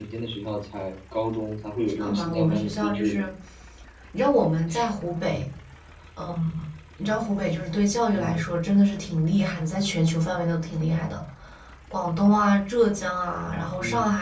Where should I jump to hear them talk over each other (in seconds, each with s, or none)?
1.9 s